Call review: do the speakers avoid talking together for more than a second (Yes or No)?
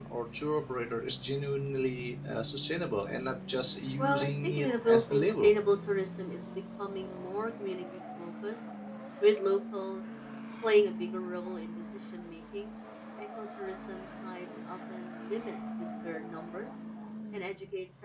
No